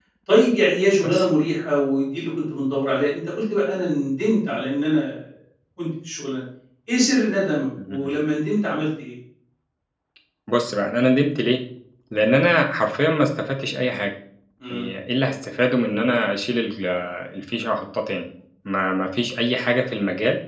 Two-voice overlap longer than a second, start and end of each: none

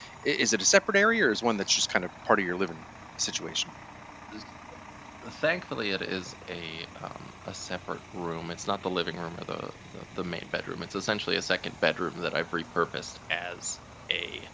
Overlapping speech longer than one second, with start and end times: none

